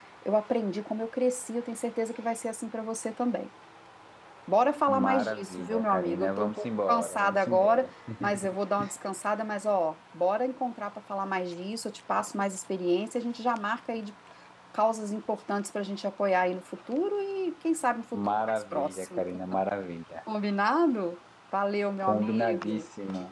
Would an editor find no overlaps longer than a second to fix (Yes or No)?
No